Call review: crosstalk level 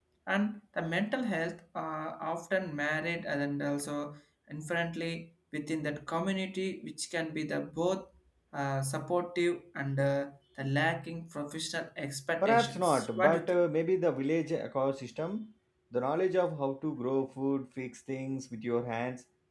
present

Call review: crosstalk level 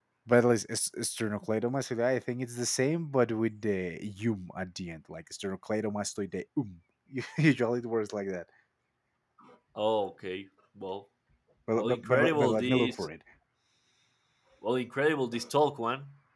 present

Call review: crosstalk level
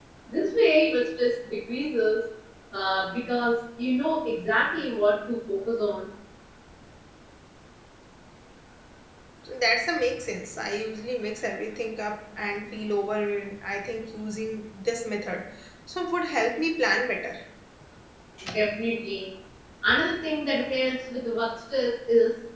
none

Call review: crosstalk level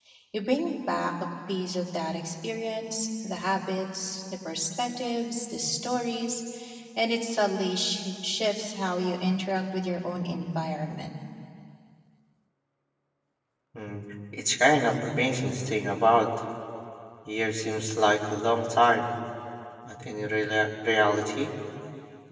none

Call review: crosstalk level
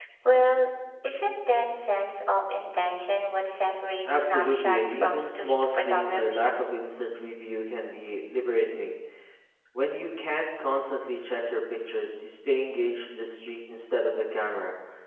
present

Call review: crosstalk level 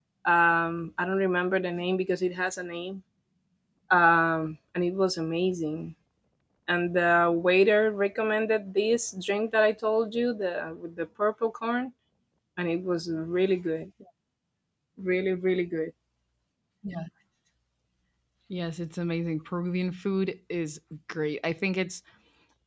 none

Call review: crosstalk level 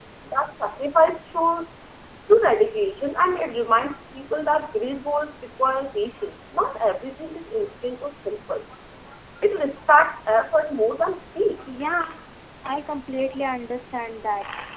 none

